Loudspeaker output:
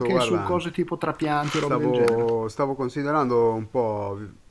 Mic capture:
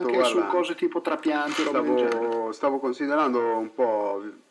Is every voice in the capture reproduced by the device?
Yes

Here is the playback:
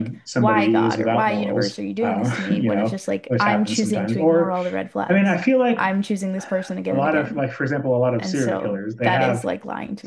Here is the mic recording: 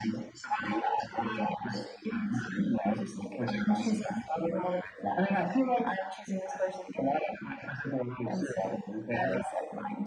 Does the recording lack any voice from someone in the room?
Yes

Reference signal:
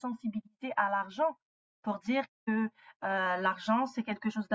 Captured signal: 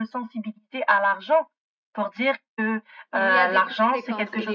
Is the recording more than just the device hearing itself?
Yes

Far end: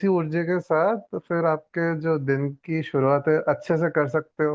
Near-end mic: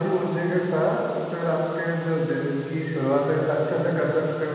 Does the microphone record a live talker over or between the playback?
No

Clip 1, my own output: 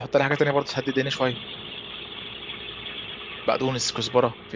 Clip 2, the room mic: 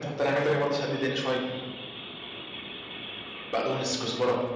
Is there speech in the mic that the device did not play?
No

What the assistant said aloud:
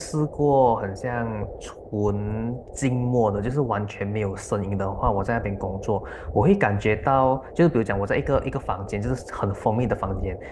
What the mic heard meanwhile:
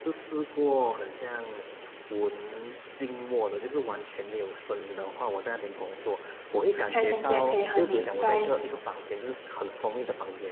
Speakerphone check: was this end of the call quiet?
No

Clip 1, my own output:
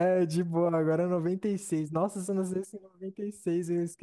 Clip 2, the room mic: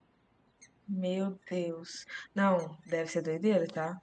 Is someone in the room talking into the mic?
Yes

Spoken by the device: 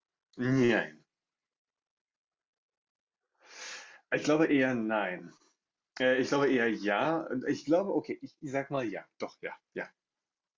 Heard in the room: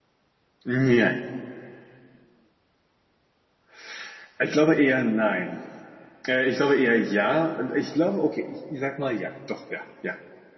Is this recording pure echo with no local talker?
Yes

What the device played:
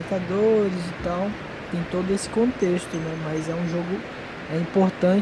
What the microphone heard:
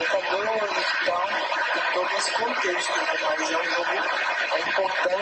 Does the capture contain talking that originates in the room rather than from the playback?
No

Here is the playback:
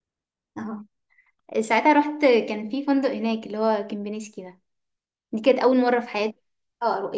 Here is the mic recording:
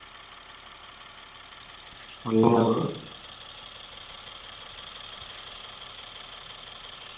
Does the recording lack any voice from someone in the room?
No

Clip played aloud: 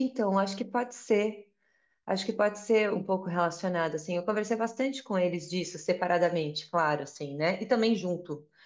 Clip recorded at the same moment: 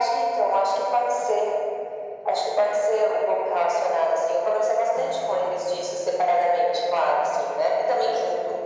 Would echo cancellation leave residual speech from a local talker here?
No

